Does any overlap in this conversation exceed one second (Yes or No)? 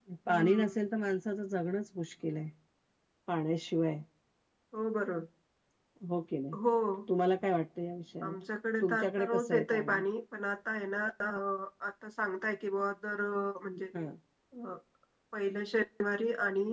Yes